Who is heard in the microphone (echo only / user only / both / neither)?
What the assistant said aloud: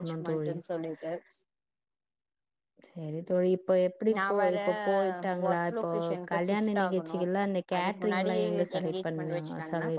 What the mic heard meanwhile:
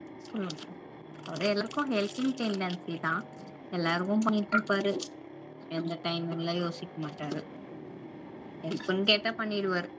user only